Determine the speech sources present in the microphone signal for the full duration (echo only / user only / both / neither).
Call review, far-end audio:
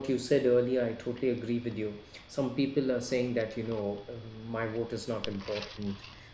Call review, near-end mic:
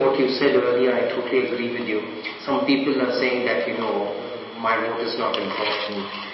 echo only